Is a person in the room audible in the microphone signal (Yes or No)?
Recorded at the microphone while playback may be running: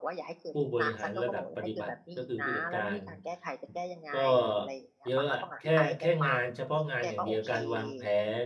Yes